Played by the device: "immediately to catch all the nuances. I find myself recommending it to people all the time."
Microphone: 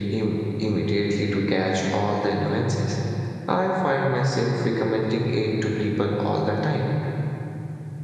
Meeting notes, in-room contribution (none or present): none